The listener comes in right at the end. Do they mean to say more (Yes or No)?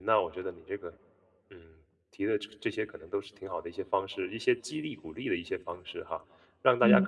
No